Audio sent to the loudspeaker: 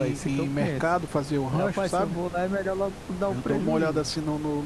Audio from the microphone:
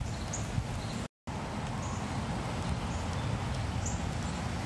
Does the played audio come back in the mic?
No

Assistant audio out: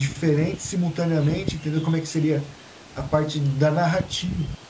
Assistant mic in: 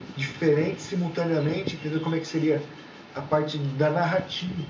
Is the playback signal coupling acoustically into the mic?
Yes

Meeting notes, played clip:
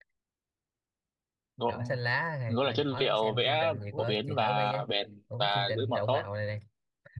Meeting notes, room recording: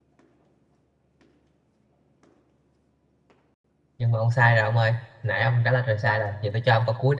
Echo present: No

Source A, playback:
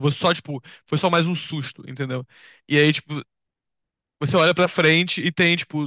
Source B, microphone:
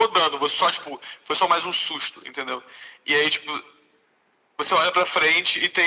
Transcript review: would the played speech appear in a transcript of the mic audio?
Yes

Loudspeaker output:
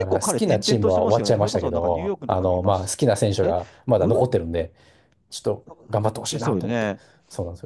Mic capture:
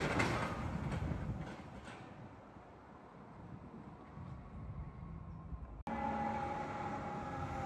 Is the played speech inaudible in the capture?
Yes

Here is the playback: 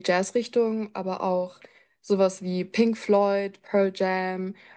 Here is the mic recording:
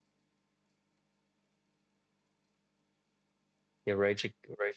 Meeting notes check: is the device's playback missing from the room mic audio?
Yes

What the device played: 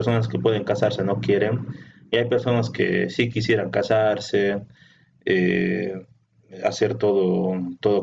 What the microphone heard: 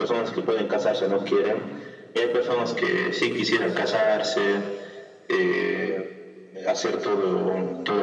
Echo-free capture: No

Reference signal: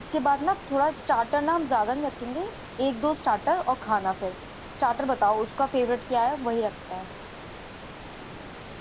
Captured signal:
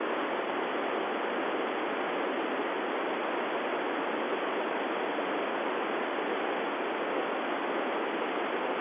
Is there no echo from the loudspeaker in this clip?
Yes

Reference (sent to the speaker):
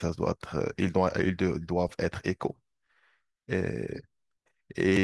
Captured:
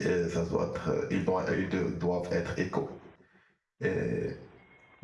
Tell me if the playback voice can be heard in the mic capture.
Yes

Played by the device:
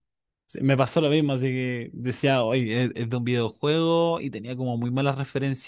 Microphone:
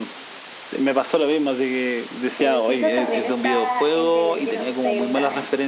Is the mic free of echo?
No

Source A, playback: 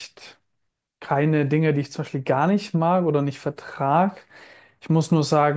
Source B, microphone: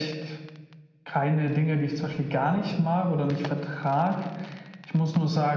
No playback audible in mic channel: No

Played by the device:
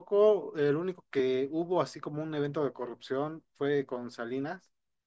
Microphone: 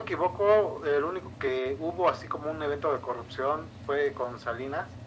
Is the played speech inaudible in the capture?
No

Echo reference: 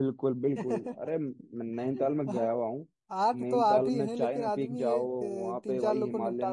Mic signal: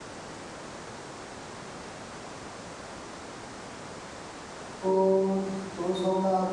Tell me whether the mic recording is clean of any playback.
Yes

